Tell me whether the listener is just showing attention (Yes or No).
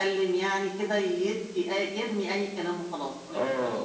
No